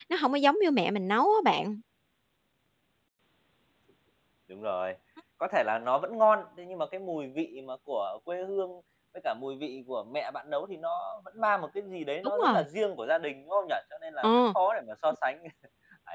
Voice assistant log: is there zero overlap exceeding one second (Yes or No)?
Yes